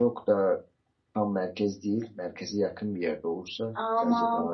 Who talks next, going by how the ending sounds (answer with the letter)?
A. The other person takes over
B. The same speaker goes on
A